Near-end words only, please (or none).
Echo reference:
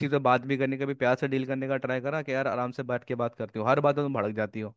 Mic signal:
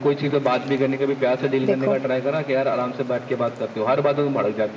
देखो